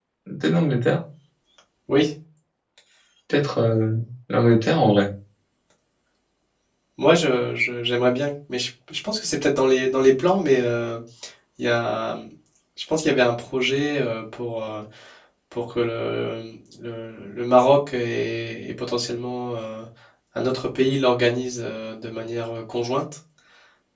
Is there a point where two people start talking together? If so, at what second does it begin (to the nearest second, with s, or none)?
none